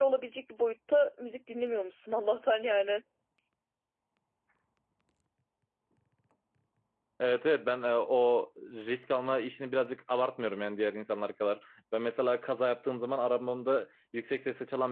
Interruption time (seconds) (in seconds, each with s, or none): none